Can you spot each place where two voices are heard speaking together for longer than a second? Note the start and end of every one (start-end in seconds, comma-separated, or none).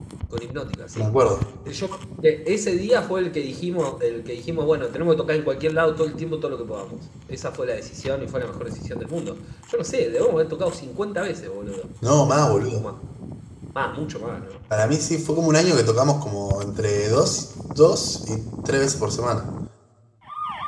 none